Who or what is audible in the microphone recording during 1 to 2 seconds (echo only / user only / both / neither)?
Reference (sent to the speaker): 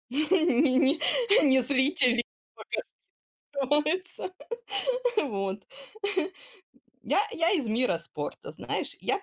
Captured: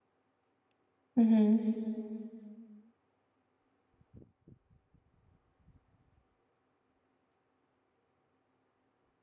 user only